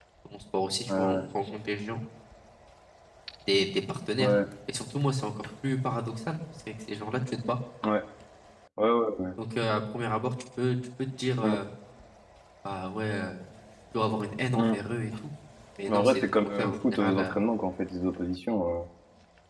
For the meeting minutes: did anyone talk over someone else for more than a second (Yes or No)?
Yes